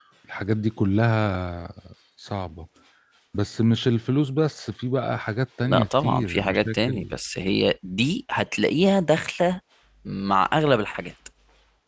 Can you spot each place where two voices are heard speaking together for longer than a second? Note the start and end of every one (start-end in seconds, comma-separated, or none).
5.7-7.1